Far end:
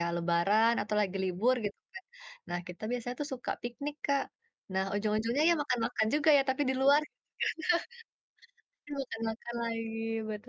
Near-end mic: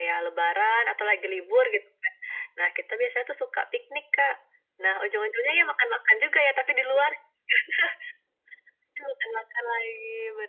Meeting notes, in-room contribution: none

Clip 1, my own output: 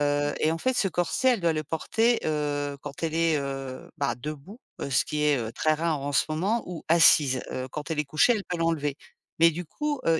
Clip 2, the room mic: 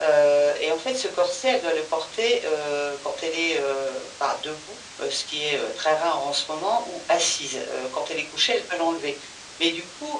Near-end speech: none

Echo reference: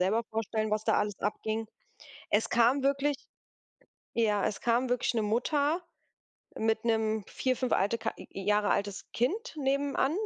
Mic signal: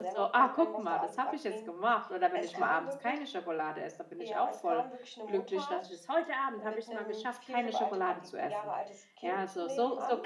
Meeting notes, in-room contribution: present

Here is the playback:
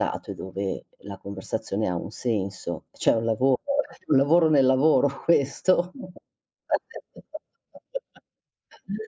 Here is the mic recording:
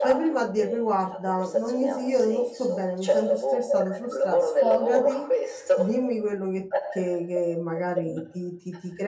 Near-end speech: present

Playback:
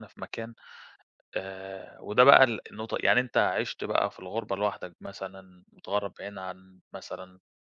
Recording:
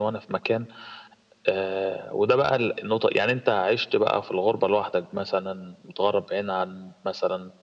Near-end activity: none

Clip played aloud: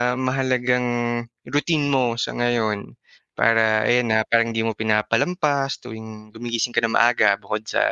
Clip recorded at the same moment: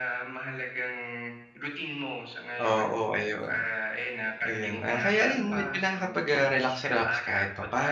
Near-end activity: present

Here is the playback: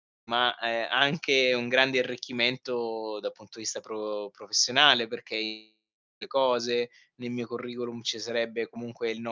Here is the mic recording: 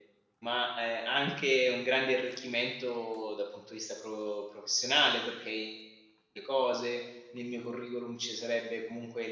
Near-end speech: none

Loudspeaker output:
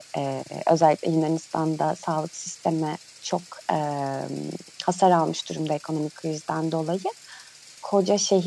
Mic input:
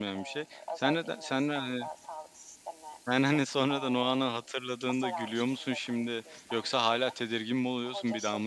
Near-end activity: present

